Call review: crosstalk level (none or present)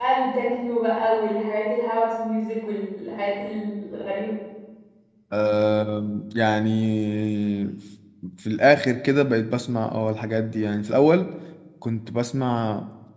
none